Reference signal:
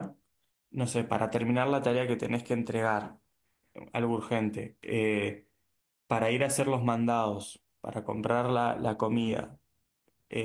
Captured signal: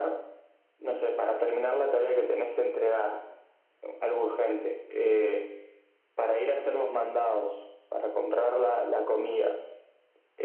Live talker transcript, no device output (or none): none